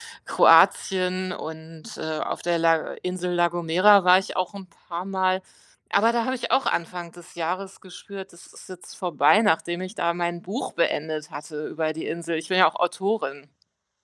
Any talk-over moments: No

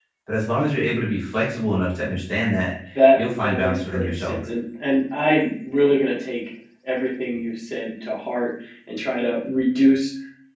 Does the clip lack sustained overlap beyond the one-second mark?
No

